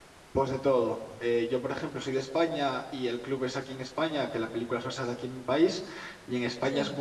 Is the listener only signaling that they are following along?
Yes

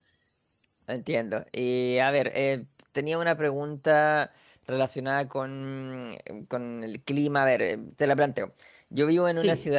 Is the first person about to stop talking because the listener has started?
No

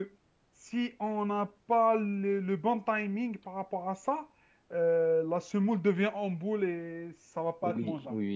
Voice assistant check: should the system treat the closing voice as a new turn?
Yes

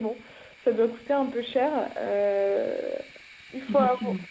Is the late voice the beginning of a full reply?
No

